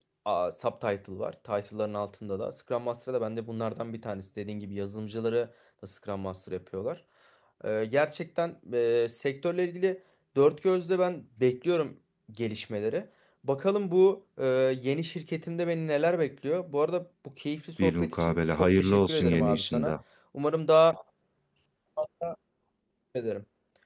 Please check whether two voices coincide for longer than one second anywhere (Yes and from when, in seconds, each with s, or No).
Yes, from 17.8 s